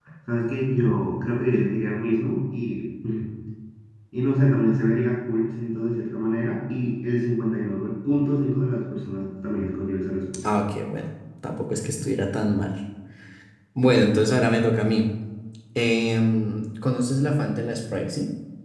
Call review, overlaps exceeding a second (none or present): none